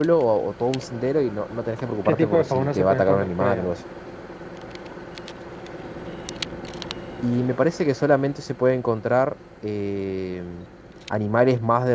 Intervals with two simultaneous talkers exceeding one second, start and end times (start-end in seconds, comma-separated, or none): 2.0-3.7